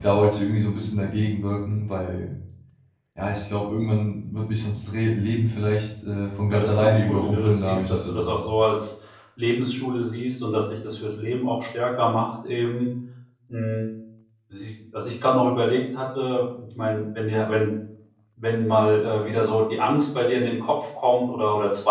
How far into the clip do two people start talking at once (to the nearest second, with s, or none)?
6 s